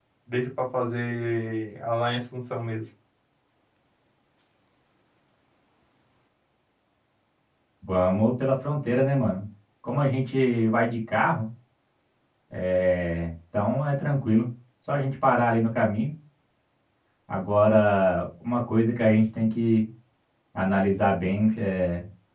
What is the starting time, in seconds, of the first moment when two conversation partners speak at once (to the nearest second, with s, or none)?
none